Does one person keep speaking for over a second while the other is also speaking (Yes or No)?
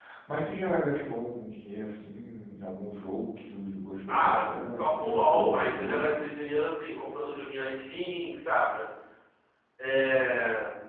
Yes